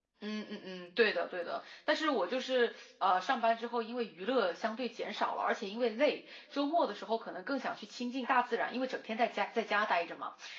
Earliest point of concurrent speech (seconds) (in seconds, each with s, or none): none